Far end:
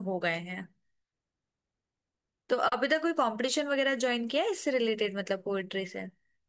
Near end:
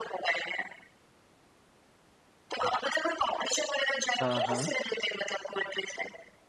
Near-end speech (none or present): present